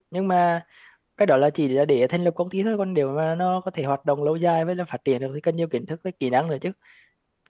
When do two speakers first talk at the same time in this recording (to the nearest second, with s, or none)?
none